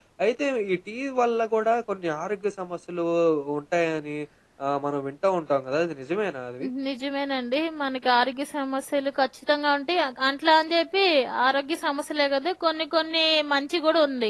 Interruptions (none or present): none